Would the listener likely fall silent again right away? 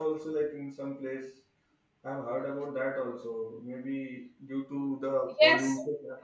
Yes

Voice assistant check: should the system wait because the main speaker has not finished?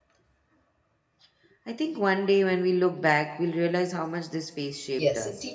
No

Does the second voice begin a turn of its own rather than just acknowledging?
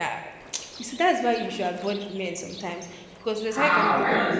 Yes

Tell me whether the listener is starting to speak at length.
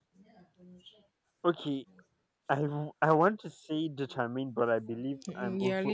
Yes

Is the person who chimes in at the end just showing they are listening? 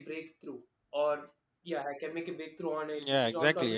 No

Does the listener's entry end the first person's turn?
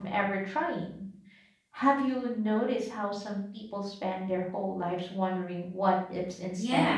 Yes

